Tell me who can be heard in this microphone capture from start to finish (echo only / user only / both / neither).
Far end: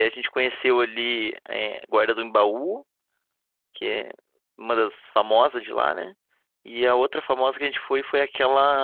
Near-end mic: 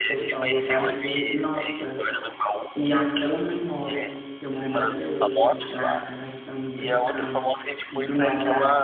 both